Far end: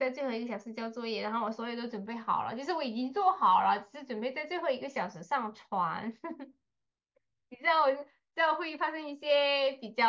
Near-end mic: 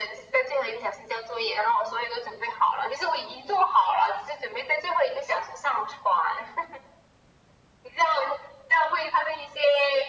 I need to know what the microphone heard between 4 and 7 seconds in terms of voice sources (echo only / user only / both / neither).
echo only